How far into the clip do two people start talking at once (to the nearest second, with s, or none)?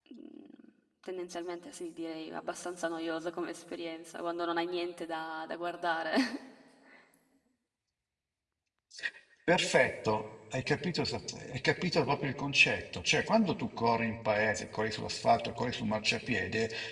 none